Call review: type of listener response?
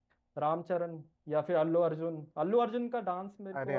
listening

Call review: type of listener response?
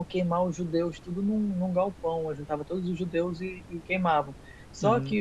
listening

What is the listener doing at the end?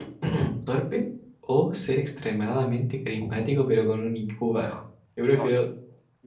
taking over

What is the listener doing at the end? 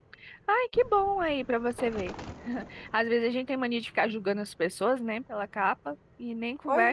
listening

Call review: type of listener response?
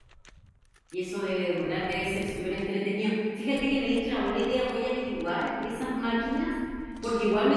listening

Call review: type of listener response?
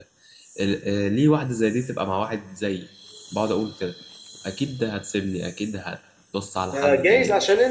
taking over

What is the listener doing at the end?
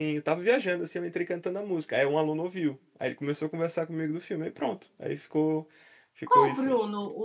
taking over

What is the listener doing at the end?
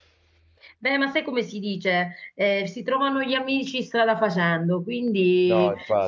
listening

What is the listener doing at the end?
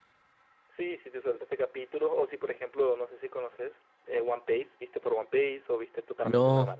taking over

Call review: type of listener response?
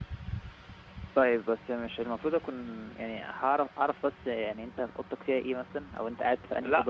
listening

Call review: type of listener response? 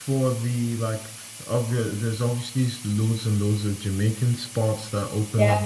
listening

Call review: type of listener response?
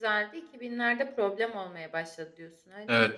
taking over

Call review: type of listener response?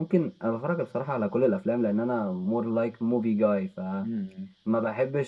listening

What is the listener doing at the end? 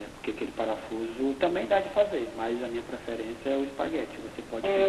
taking over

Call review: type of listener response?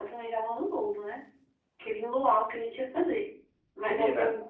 taking over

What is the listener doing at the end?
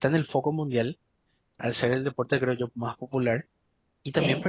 listening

